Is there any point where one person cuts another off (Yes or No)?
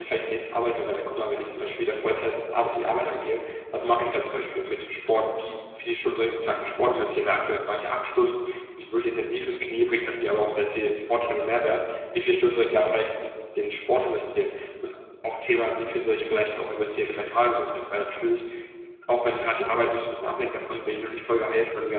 No